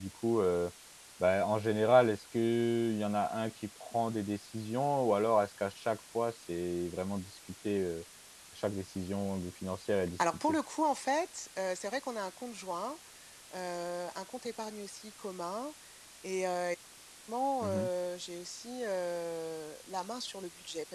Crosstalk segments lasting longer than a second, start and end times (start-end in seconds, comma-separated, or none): none